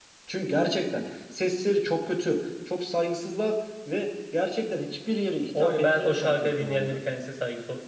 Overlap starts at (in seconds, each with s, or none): 5.5 s